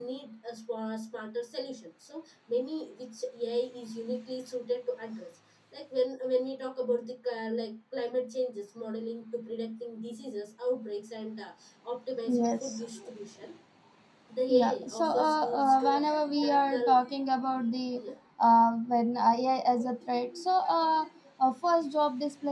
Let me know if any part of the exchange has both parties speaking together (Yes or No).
Yes